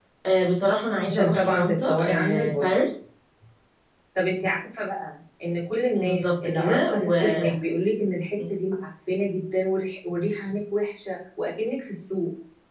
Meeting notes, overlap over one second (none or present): present